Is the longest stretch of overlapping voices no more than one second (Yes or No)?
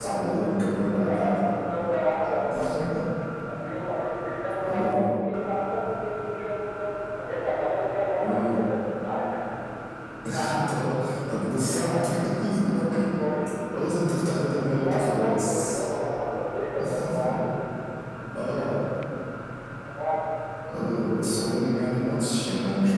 No